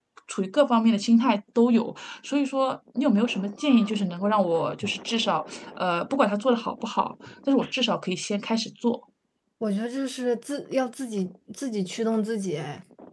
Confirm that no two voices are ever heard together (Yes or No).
Yes